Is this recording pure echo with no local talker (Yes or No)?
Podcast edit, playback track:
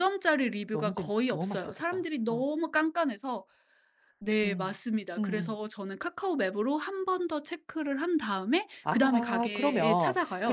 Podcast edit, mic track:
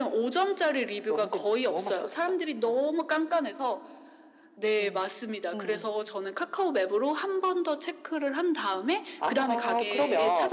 Yes